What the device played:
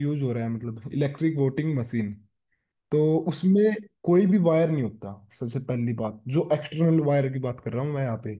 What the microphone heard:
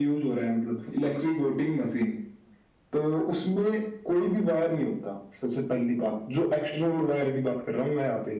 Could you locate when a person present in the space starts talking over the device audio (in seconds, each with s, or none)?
none